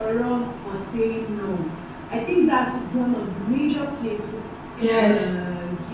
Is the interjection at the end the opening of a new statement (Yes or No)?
No